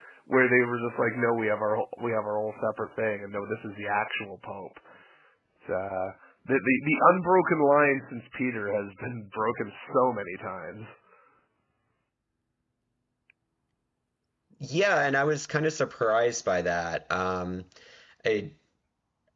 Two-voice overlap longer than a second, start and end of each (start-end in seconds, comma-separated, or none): none